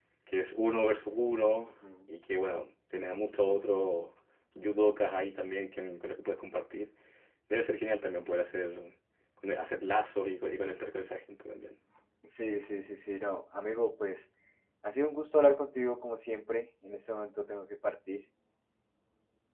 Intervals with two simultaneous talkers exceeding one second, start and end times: none

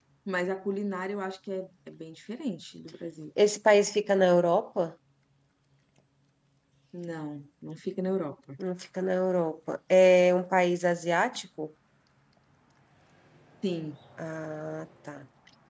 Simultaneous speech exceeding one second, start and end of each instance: none

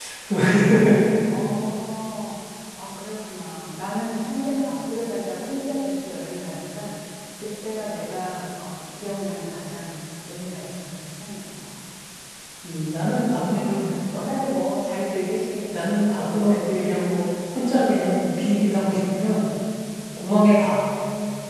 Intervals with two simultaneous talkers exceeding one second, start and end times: 15.7-17.1

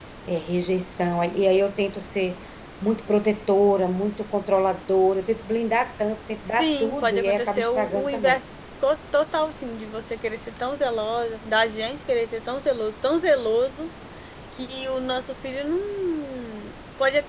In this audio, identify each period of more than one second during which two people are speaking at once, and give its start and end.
6.6-8.4

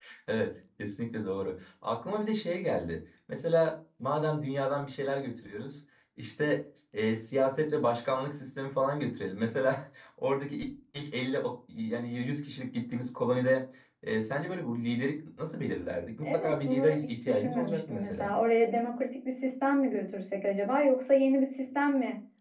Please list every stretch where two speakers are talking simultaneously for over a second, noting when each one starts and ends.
16.2-18.3

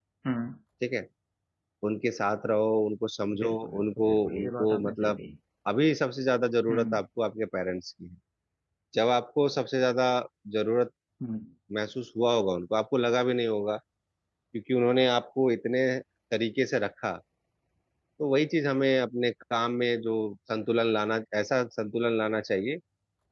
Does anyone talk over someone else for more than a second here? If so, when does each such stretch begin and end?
3.4-5.2

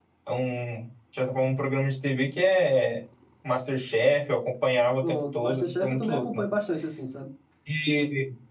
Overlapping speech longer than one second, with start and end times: 5.1-6.4

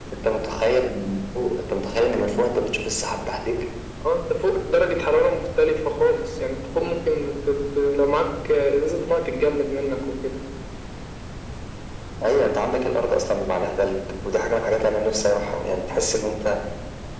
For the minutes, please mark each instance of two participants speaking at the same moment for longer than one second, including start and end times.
none

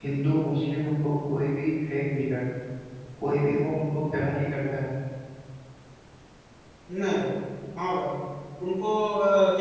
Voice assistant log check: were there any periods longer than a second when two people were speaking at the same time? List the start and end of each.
none

